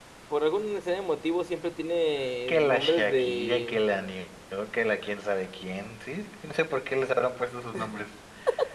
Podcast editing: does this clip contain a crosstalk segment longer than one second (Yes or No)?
Yes